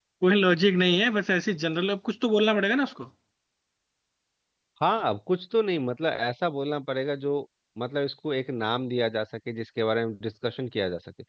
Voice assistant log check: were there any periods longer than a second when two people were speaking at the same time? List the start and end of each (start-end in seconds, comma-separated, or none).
none